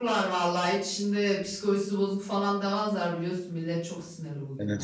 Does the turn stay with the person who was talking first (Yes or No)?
No